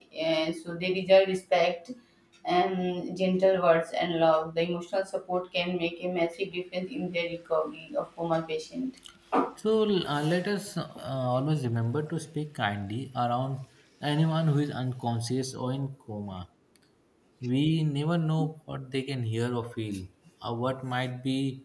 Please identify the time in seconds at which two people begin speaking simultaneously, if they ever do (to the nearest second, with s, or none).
none